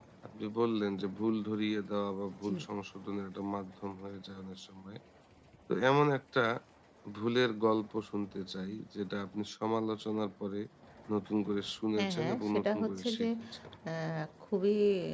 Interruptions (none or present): present